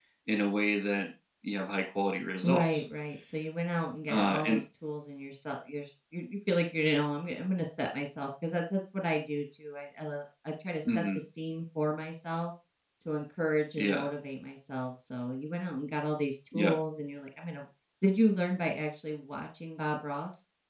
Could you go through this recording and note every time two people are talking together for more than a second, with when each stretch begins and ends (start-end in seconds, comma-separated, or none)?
none